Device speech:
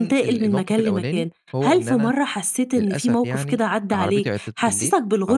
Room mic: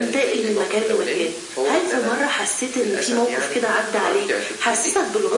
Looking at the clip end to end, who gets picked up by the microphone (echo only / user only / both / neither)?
echo only